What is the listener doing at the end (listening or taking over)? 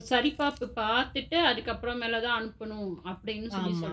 taking over